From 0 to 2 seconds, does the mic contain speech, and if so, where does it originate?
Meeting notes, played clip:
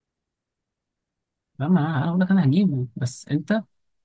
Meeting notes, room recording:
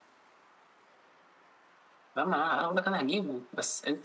neither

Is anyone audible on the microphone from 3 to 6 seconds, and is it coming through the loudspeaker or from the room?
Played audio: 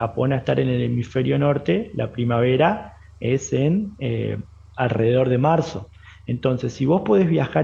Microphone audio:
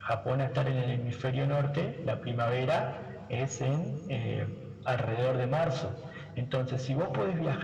echo only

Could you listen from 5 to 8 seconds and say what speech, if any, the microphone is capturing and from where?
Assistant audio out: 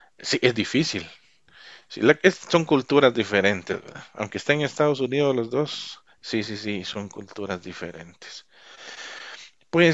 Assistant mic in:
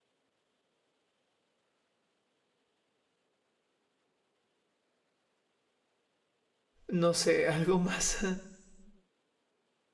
user only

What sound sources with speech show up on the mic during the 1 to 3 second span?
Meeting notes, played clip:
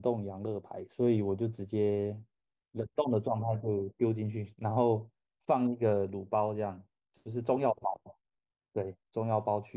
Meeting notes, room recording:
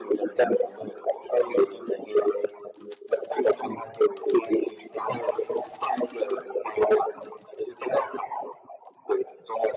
echo only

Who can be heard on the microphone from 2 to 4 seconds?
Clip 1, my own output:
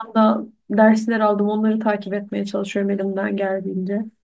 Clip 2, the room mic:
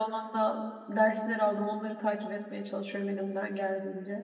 echo only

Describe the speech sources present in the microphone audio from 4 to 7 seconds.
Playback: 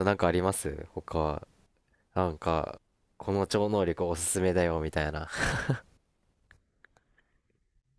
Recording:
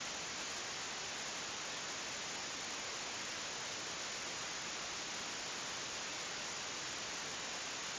neither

